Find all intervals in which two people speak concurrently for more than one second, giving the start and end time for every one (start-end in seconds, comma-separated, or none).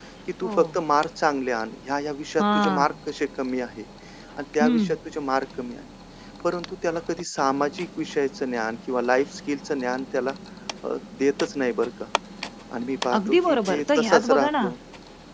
13.2-14.5